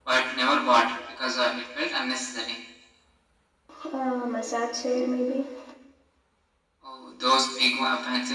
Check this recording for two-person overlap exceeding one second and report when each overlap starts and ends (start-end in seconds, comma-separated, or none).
none